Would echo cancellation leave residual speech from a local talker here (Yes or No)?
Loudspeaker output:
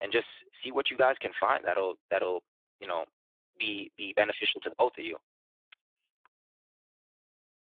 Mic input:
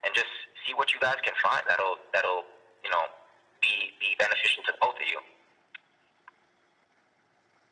No